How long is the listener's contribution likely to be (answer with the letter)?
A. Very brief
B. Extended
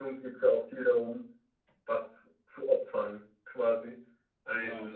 A